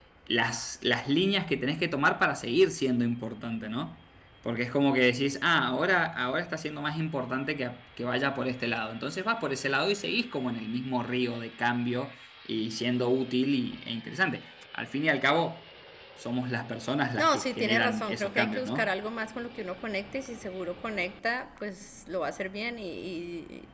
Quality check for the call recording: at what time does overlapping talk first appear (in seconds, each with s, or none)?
17.2 s